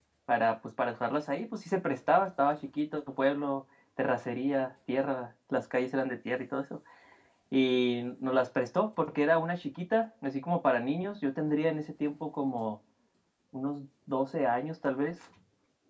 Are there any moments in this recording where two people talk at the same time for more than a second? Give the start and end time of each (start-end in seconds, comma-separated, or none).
none